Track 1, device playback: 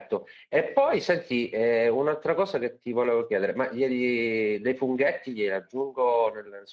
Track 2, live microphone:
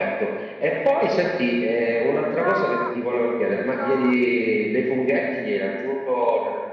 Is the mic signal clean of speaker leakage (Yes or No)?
No